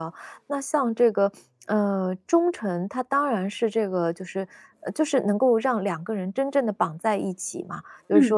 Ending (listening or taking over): listening